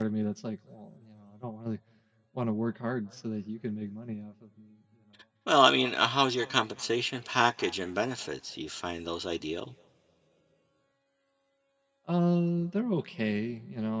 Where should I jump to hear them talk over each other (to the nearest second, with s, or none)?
none